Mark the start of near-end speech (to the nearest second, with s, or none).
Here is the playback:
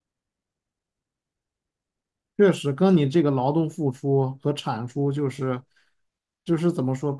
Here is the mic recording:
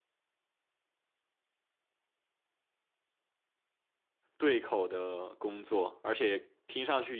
4 s